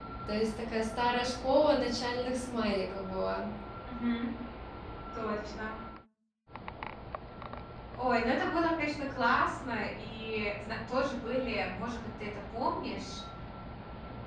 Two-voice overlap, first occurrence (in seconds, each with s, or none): none